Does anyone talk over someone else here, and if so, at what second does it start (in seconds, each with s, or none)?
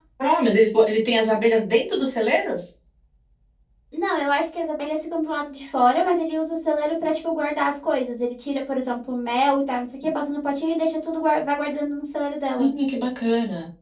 none